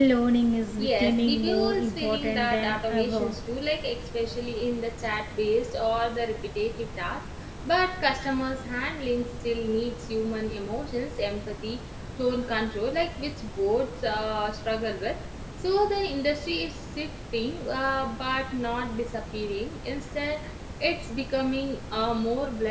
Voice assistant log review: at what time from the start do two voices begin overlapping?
0.8 s

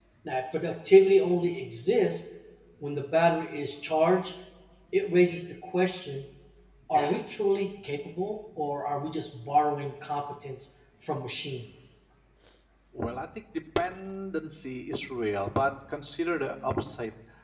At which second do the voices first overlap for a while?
none

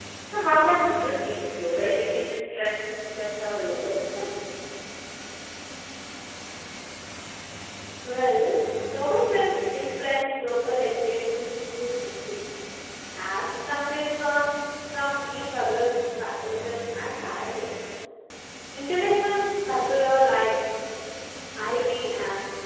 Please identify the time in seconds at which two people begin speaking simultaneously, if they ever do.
none

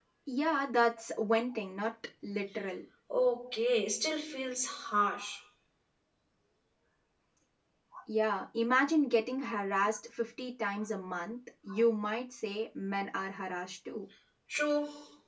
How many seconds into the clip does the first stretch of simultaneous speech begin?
none

